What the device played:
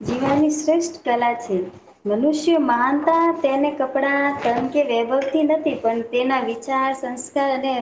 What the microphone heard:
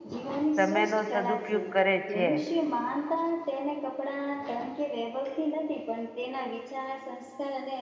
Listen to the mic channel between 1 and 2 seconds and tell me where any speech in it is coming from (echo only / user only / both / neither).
both